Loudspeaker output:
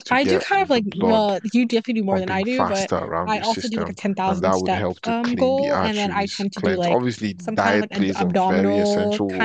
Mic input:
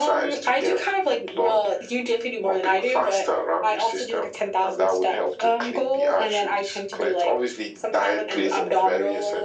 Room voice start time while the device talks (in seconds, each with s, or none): none